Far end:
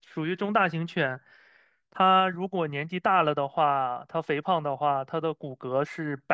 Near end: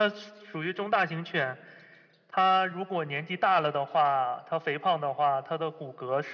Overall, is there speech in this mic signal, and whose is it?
echo only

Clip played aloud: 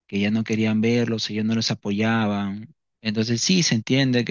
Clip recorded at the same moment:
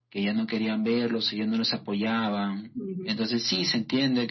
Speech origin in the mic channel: both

